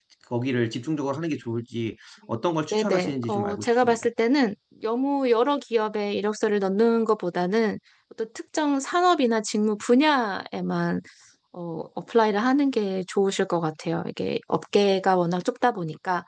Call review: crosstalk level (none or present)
present